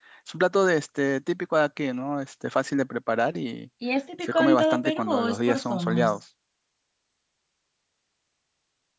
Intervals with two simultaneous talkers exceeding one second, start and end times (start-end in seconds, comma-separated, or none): 4.2-6.2